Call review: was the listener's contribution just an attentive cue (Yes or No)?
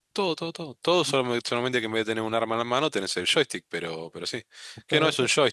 Yes